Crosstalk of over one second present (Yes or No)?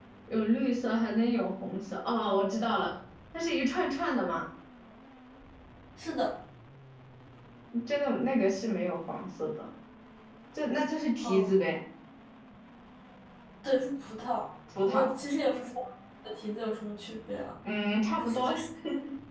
No